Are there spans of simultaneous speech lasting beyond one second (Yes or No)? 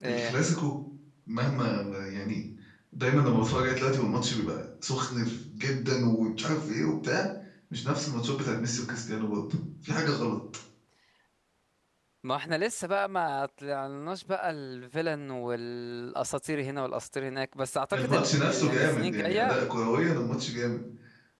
Yes